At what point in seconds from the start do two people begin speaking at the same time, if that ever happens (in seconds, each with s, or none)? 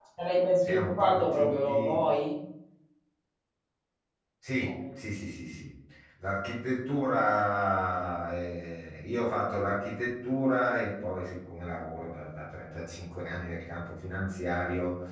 0.6 s